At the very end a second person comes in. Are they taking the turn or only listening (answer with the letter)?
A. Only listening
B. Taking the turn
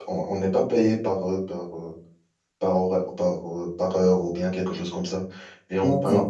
A